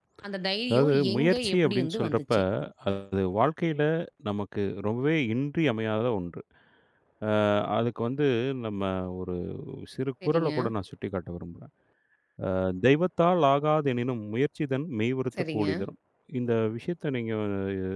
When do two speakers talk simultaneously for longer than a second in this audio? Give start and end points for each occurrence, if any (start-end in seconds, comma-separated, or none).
0.7-2.3